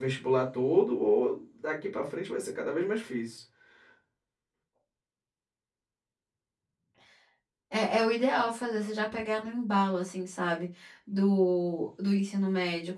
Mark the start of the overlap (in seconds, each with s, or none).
none